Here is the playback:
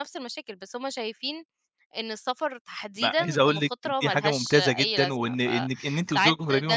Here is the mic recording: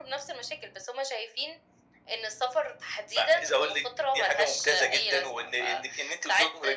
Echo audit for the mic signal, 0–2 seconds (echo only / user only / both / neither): echo only